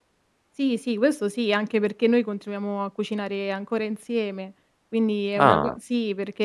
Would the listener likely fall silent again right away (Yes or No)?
Yes